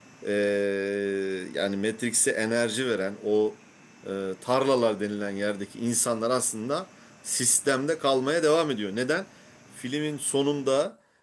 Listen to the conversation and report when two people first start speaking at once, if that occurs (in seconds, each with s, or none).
none